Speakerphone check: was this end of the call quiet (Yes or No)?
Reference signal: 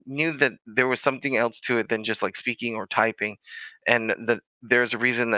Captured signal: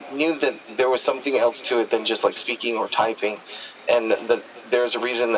Yes